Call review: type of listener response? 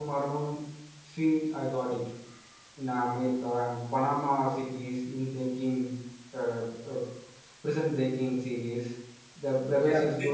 taking over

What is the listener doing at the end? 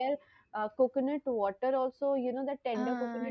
listening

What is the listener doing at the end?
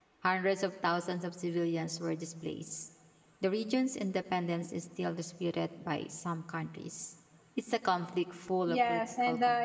taking over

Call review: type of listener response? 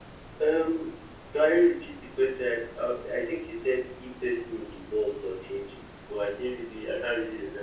taking over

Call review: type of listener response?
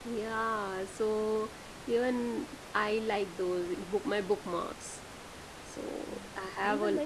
taking over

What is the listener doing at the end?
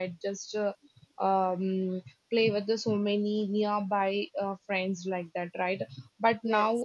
listening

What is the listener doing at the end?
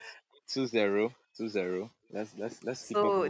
taking over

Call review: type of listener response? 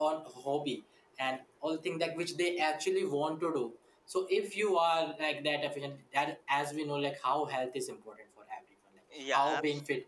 listening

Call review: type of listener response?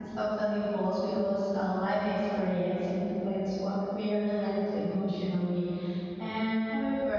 listening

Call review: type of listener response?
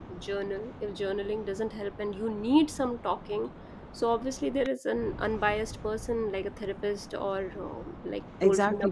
taking over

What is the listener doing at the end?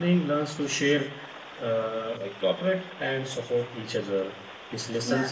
taking over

